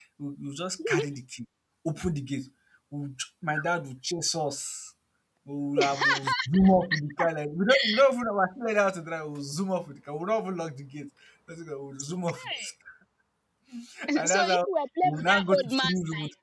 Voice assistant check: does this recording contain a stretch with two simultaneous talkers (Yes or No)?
Yes